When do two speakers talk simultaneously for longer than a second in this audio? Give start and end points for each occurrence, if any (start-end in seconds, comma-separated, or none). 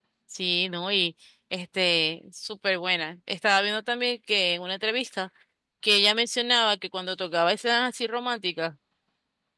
none